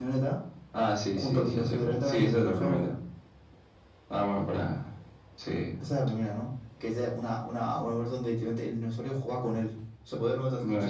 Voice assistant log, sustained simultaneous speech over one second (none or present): present